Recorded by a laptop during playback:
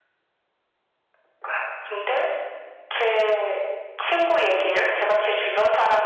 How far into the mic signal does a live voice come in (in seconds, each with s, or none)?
none